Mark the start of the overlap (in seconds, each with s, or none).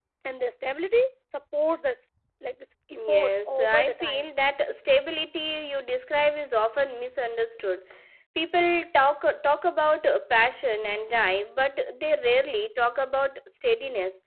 2.9 s